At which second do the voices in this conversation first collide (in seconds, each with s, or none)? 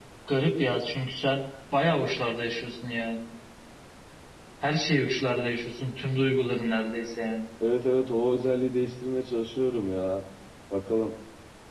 none